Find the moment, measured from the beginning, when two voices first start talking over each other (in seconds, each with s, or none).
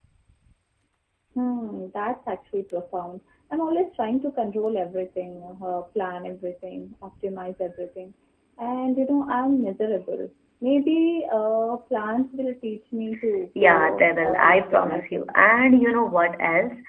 13.6 s